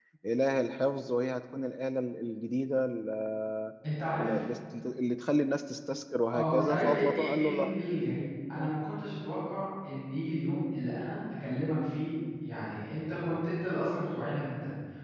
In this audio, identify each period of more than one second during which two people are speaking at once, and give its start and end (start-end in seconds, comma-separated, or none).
6.3-7.7